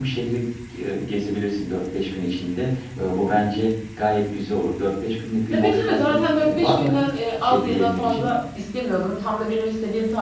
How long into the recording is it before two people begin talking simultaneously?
5.5 s

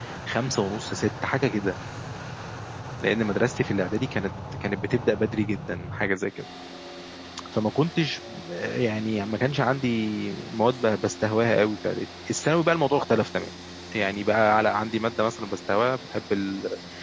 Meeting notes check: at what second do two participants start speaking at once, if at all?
none

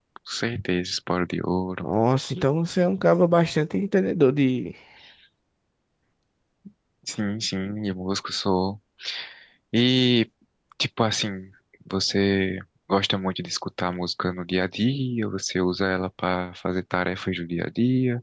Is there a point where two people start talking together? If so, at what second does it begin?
none

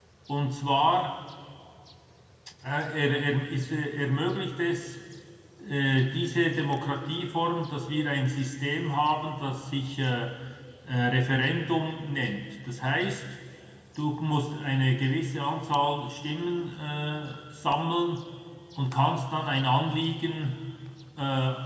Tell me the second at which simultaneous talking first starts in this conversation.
none

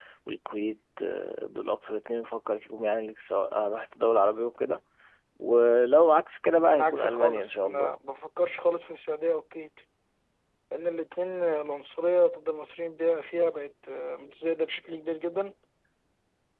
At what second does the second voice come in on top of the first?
6.7 s

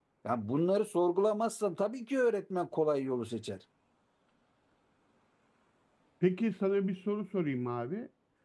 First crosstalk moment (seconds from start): none

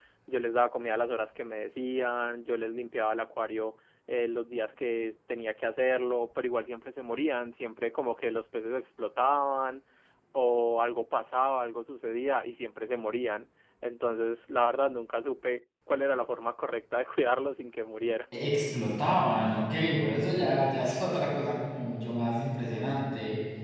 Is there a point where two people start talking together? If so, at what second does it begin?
none

